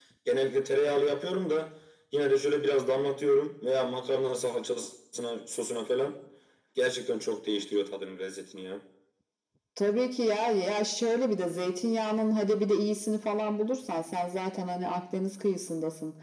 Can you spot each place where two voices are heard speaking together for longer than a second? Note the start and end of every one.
none

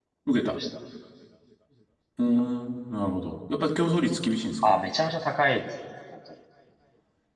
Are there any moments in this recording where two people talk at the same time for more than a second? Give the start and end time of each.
none

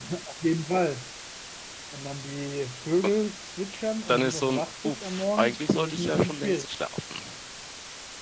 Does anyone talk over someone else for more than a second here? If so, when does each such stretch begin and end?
4.1-6.7

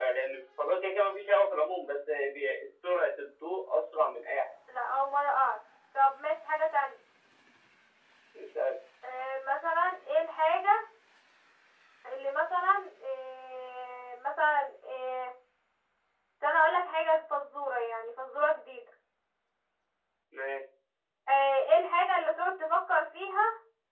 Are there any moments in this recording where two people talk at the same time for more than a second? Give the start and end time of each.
none

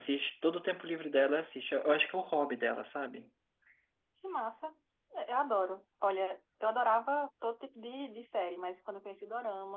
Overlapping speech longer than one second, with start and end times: none

